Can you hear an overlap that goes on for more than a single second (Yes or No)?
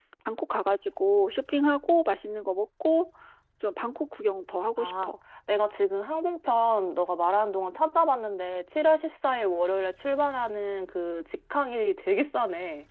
No